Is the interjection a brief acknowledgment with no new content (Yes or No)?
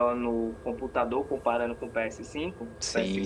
No